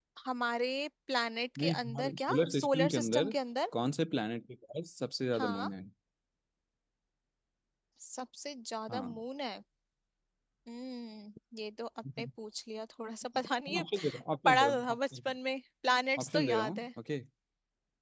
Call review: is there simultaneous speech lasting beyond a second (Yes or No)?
Yes